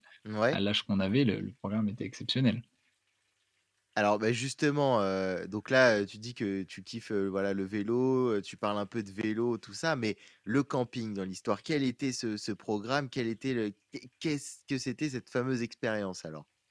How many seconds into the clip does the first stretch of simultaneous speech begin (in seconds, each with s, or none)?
none